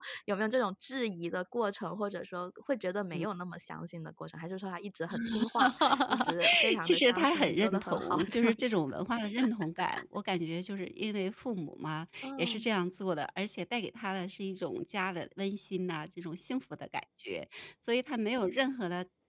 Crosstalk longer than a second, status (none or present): present